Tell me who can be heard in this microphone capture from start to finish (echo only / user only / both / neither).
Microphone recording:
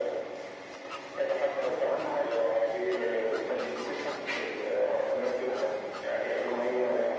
echo only